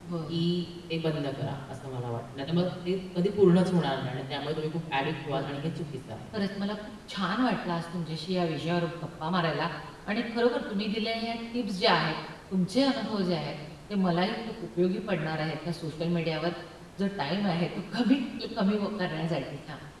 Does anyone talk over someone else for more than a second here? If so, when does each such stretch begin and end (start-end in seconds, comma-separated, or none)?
none